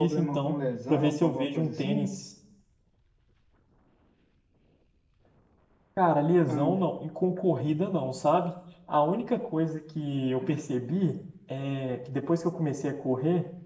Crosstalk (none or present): present